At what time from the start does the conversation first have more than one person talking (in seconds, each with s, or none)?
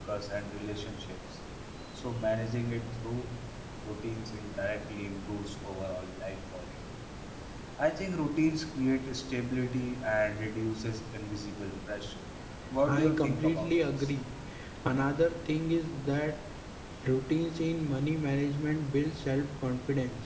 12.9 s